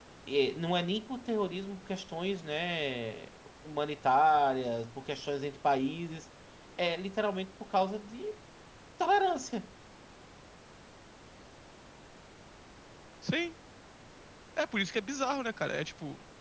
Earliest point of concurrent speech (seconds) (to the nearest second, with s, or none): none